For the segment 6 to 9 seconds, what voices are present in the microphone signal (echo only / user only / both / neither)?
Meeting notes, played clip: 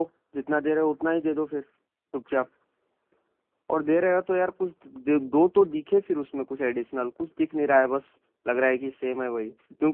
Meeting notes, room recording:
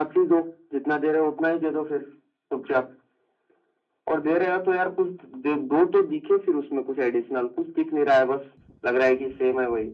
echo only